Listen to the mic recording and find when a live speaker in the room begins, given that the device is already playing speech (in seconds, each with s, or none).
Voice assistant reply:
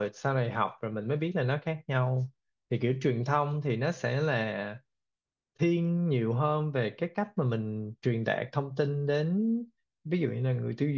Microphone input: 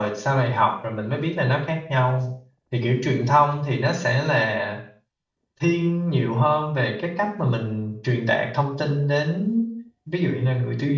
none